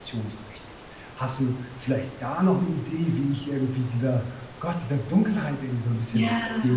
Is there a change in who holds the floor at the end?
Yes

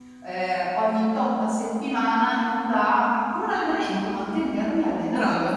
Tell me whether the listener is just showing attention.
No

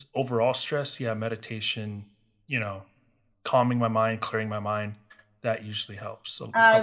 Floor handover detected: Yes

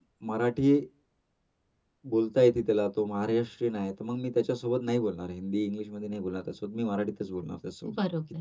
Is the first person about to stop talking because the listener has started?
No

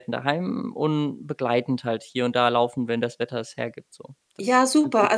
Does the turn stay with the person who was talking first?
No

